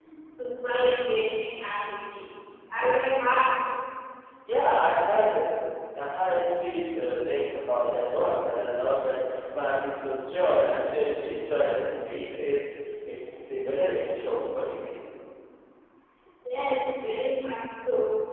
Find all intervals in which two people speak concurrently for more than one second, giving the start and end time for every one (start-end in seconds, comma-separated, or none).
none